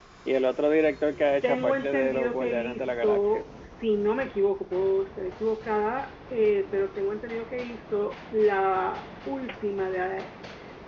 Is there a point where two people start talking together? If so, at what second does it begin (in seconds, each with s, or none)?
1.4 s